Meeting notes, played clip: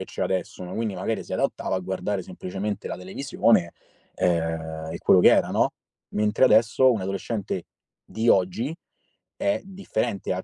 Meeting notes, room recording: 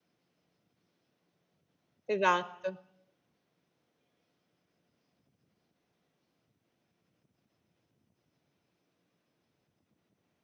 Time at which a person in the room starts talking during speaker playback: 2.1 s

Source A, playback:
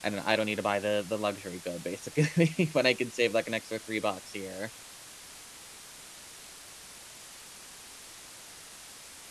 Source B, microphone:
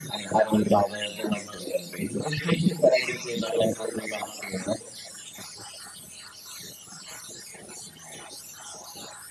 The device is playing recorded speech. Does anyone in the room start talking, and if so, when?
none

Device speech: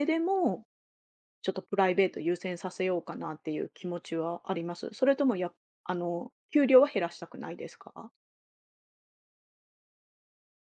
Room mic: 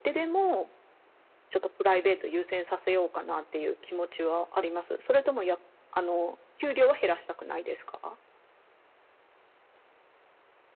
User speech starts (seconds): none

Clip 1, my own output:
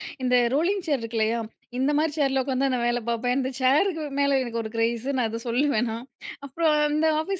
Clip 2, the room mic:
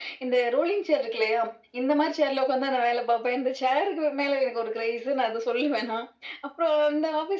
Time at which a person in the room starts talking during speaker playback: none

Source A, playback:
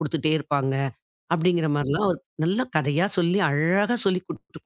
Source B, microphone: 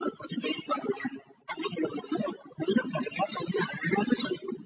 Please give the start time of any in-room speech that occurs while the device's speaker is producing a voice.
none

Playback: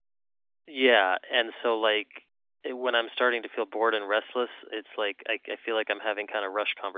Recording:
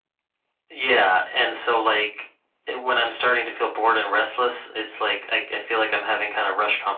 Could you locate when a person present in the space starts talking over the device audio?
none

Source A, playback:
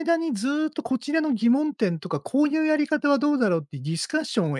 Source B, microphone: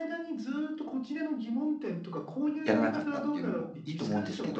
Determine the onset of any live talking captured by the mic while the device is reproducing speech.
2.6 s

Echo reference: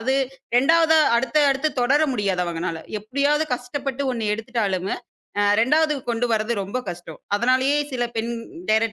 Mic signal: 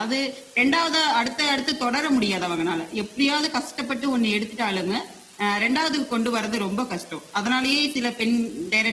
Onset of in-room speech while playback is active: none

